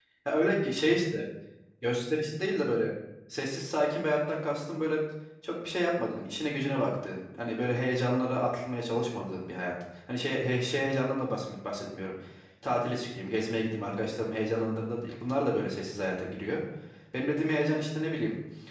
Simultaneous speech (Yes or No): No